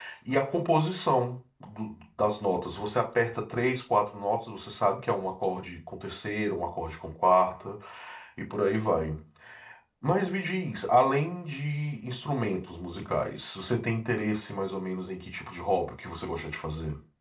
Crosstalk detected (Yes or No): No